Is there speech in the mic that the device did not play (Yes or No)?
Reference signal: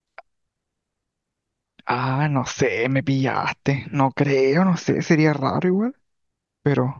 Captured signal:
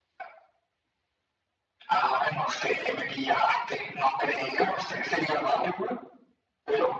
No